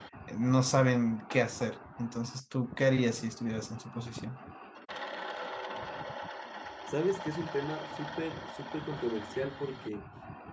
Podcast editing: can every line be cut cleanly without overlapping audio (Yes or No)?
Yes